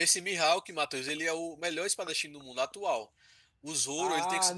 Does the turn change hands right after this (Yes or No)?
Yes